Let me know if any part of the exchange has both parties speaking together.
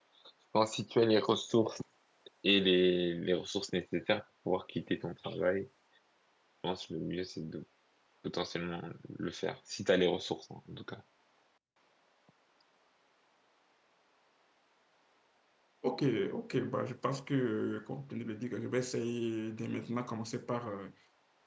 No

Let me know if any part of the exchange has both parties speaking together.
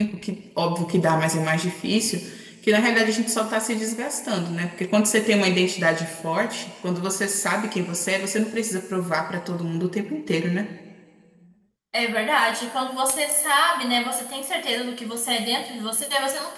No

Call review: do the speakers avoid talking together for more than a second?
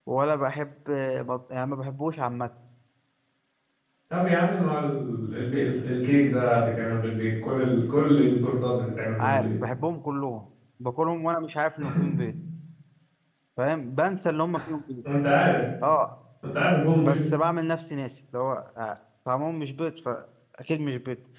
Yes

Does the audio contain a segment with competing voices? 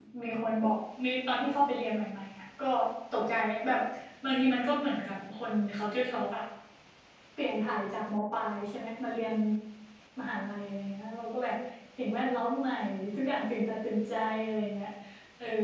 No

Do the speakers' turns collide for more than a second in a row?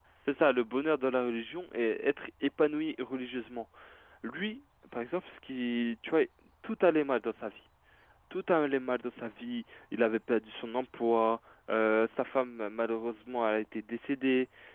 No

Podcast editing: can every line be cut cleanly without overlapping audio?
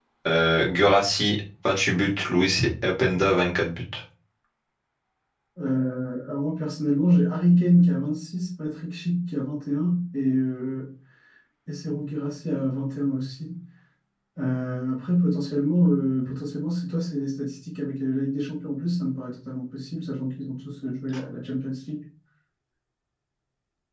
Yes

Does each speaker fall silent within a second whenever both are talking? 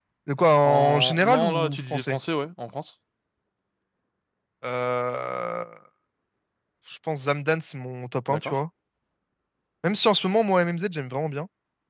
No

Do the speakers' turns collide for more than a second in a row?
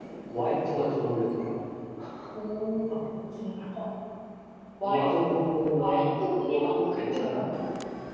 Yes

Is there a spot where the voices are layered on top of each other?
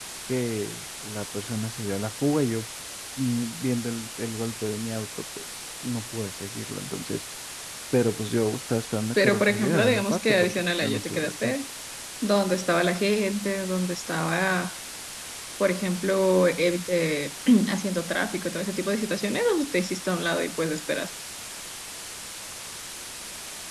Yes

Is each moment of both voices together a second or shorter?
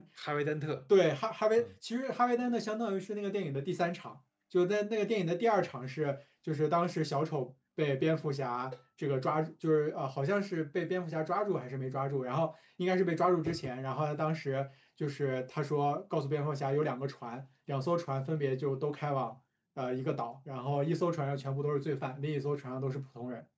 Yes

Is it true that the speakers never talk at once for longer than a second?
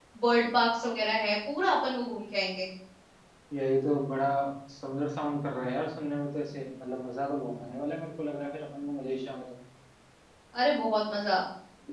Yes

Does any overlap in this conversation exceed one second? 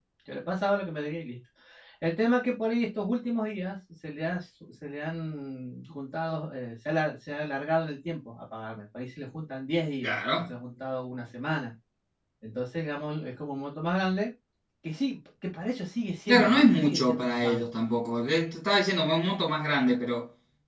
Yes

